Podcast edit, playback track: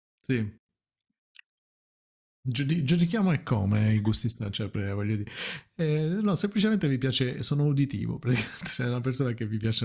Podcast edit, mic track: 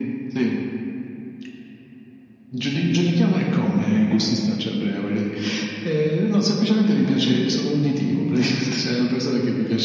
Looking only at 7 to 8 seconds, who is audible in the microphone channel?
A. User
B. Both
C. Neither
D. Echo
D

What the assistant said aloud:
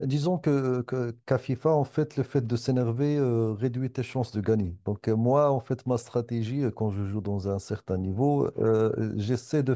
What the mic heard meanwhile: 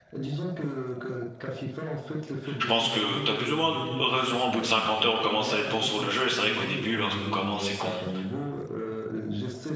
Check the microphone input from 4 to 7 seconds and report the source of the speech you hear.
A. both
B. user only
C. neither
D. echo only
A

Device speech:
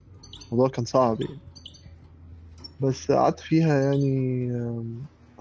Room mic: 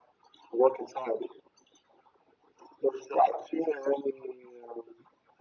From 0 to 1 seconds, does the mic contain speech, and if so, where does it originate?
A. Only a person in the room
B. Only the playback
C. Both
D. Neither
B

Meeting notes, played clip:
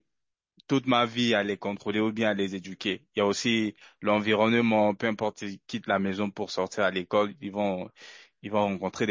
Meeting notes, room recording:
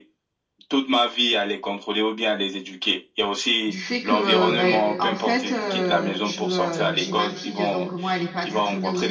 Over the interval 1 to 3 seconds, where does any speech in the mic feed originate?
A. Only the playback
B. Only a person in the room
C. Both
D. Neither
A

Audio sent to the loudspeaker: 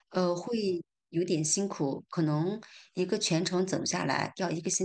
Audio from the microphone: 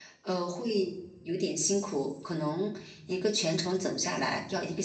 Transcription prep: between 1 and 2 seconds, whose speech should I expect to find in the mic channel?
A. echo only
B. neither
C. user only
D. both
A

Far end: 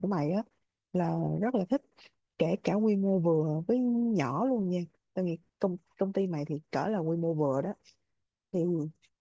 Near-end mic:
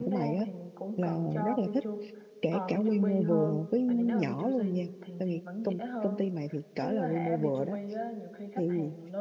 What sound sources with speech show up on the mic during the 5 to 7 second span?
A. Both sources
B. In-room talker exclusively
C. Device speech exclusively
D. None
A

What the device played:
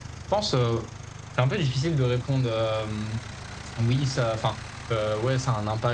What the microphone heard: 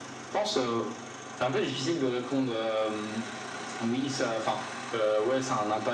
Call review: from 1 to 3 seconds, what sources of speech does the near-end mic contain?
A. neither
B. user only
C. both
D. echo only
D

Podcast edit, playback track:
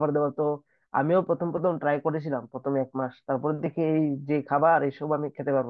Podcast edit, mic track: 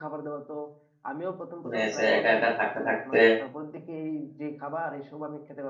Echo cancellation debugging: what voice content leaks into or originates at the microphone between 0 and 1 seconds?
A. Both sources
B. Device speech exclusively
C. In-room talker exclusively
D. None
B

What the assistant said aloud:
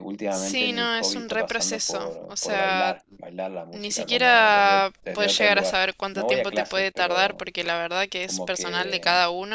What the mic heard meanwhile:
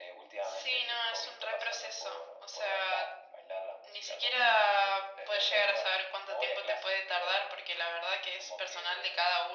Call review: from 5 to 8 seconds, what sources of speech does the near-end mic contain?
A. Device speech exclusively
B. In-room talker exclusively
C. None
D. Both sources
A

